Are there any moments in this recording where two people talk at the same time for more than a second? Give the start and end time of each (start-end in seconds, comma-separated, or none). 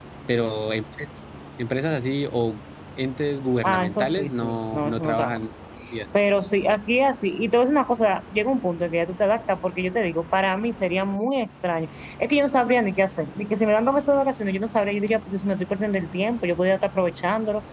3.6-5.4